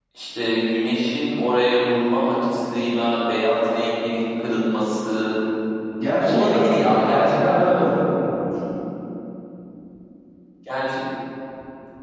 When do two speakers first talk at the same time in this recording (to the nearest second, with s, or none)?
6 s